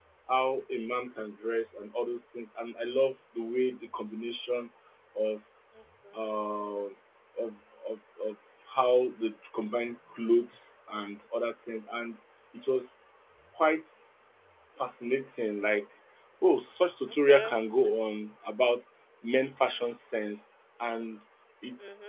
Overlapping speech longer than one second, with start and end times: none

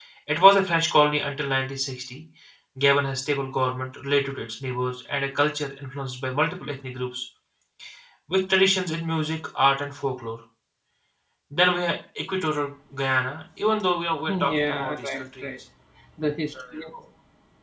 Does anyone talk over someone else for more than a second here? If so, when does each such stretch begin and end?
14.3-15.6

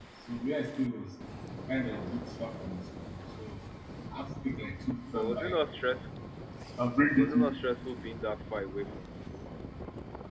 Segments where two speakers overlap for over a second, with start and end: none

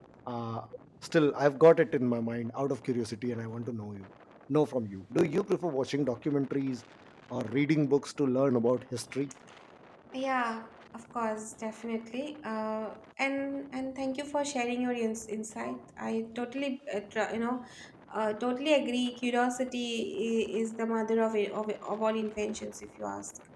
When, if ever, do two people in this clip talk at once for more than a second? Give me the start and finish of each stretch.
none

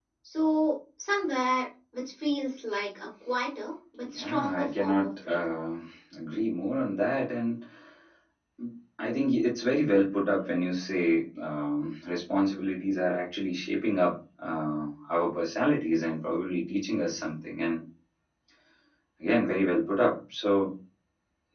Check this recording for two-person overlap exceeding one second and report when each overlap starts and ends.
4.0-5.5

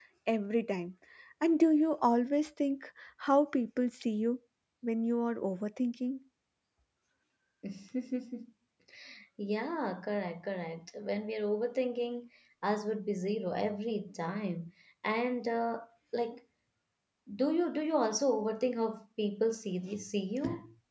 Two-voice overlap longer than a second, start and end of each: none

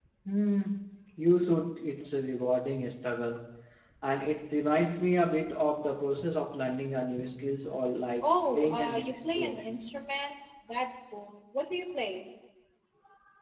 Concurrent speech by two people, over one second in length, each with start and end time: 8.2-9.6

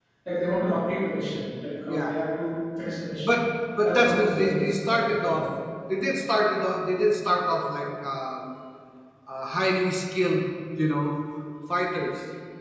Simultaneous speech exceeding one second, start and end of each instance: 3.8-5.5

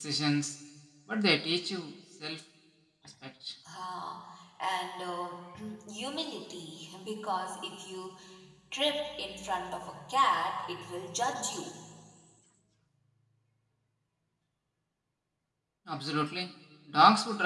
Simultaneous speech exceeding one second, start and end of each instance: none

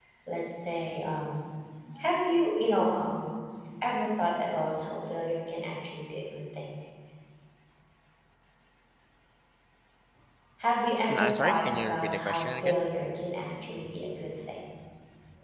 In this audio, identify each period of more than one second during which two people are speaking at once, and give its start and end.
11.1-12.8

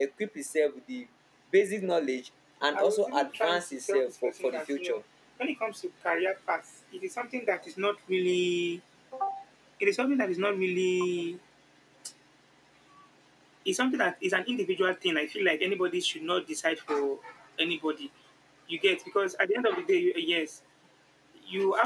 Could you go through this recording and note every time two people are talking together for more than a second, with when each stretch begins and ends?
2.7-5.0

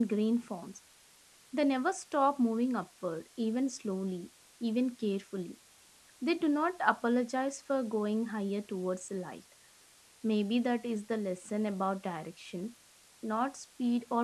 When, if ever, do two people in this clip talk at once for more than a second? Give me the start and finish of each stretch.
none

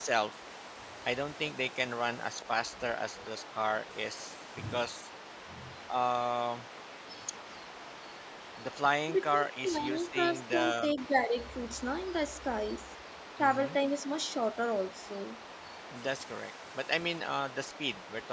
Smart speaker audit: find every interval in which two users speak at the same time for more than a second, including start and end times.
9.1-10.9

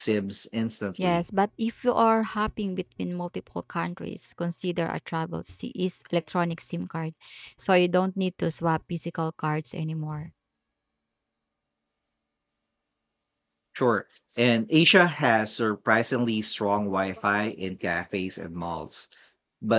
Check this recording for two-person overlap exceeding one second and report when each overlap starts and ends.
none

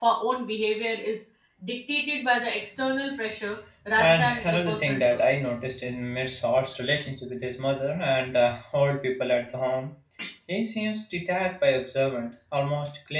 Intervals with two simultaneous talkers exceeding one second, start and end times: 4.0-5.2

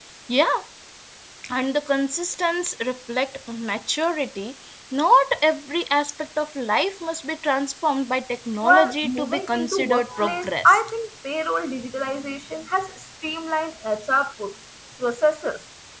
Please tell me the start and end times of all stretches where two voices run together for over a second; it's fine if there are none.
8.6-10.8

